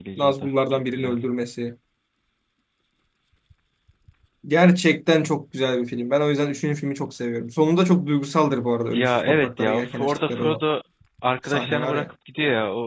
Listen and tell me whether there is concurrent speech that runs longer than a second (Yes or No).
Yes